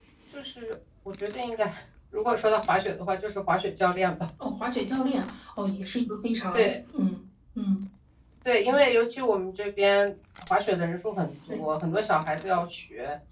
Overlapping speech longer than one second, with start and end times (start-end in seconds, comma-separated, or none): none